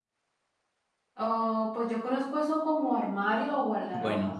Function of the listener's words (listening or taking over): taking over